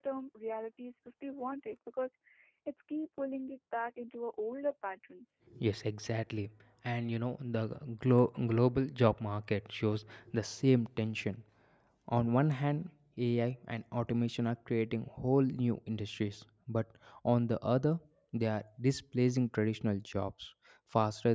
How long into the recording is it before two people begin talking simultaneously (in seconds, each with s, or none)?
none